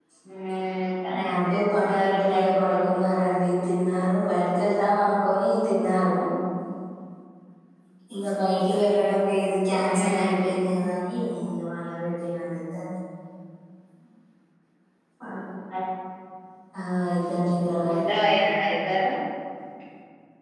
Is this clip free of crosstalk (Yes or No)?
No